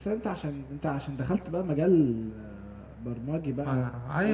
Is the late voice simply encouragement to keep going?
No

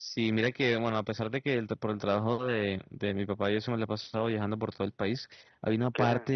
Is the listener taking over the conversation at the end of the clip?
No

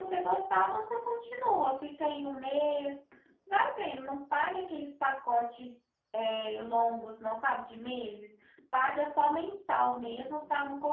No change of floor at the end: Yes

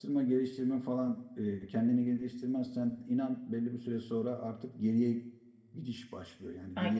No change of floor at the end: No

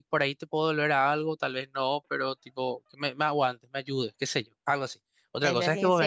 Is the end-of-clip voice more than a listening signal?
No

